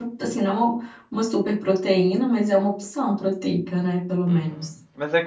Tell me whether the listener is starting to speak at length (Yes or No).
Yes